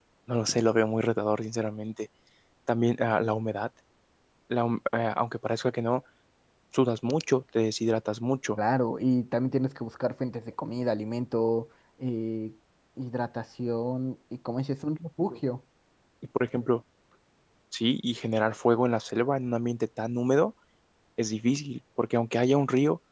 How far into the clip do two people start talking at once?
none

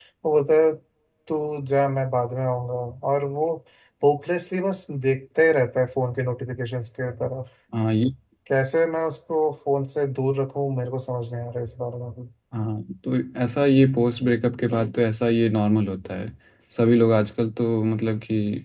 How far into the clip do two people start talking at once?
none

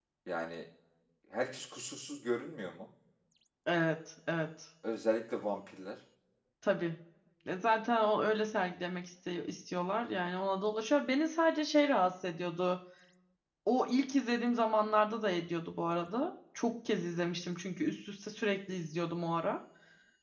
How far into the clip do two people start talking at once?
none

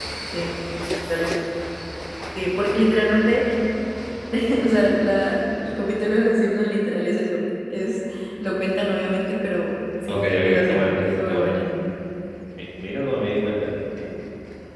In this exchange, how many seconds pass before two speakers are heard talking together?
10.1 s

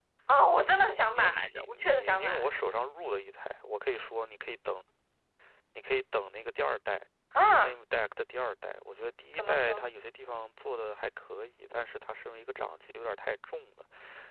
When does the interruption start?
0.6 s

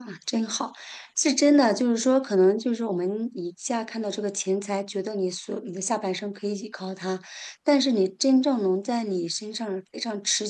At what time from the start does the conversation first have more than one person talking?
none

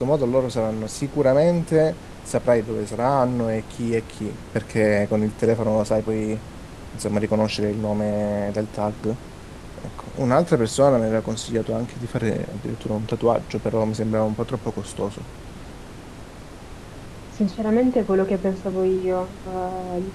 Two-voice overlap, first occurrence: none

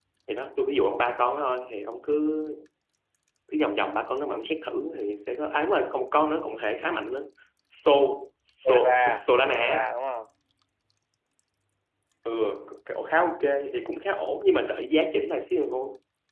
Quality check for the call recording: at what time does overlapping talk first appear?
8.6 s

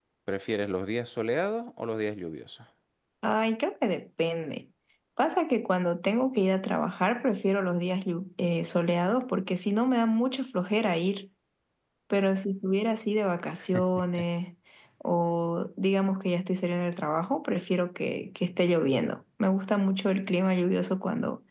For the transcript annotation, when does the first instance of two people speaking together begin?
none

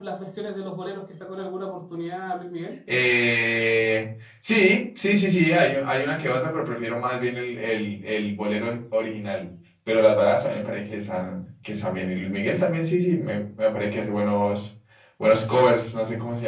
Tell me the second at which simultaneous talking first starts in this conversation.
none

